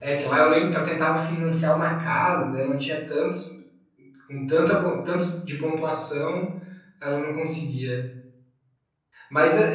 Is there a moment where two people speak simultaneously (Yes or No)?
No